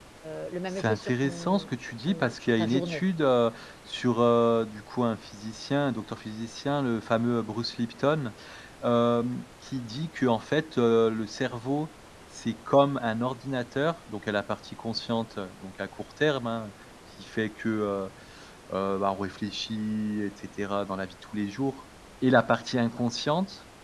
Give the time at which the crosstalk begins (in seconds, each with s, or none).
0.7 s